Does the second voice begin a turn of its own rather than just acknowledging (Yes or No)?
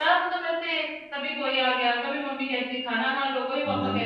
No